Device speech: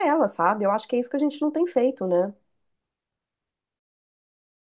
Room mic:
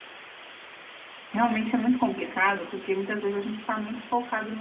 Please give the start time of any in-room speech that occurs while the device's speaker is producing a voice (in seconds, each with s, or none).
1.3 s